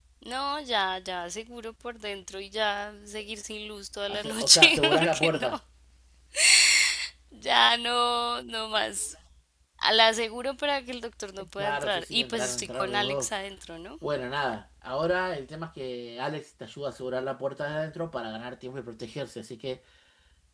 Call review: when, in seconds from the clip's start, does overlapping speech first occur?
4.1 s

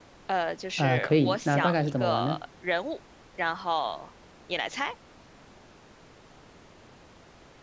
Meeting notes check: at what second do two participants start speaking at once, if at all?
0.8 s

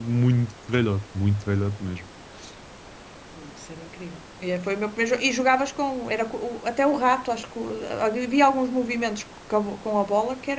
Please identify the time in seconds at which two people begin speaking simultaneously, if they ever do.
none

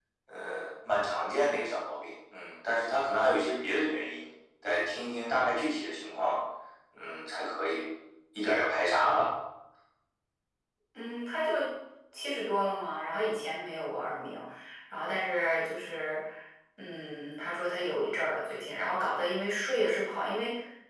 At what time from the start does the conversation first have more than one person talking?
none

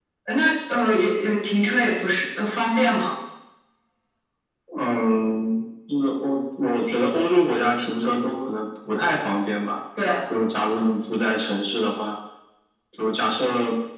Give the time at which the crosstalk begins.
none

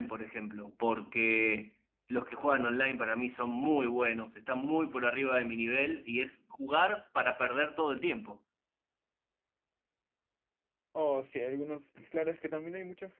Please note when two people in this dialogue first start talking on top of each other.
none

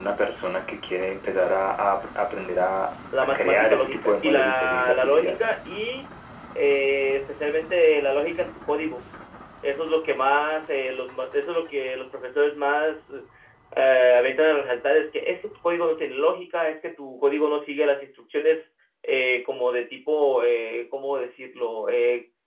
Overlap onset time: 3.1 s

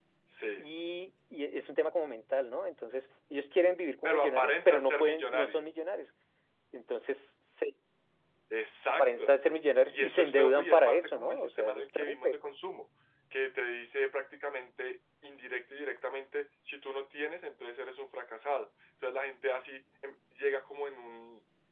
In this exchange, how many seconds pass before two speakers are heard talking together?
4.0 s

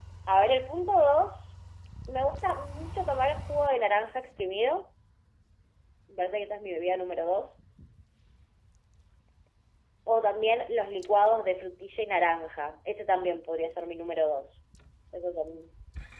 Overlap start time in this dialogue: none

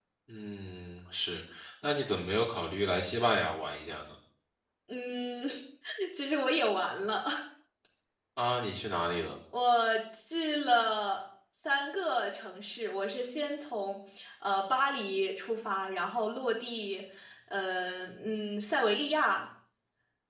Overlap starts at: none

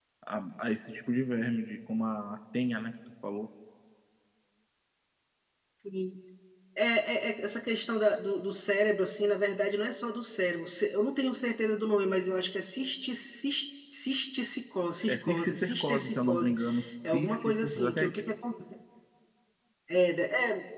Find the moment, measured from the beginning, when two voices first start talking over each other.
15.0 s

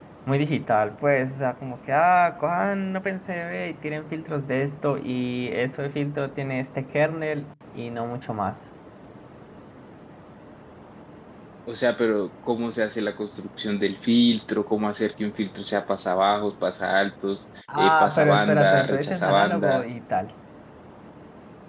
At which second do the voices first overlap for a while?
17.7 s

